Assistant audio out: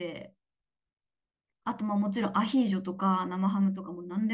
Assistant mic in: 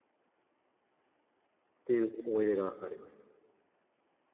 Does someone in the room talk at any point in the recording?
Yes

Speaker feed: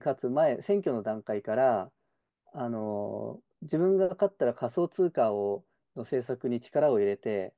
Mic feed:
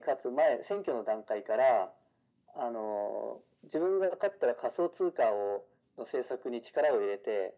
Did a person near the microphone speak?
No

